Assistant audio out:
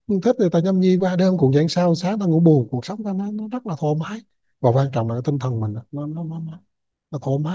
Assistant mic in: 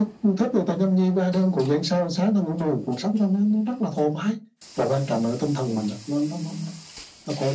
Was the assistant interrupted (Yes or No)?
No